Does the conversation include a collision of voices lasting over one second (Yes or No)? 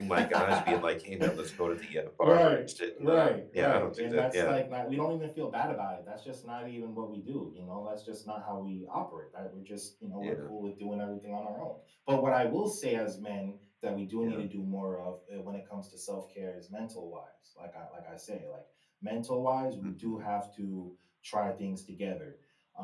Yes